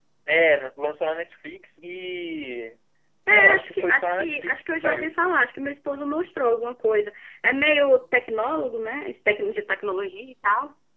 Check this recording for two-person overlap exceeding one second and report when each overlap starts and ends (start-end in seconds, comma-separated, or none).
3.3-5.1